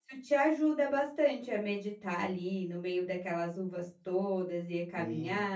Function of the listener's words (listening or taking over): taking over